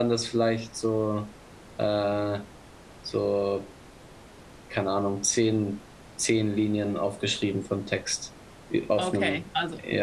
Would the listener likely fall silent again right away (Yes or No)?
No